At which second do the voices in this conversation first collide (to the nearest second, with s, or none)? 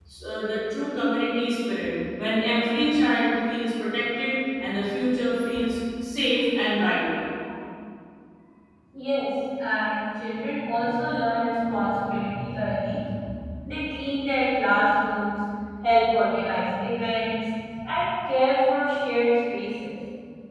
none